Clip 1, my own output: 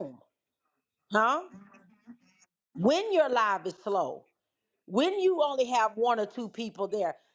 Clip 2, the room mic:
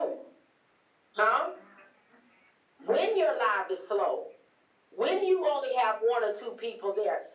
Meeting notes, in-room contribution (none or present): none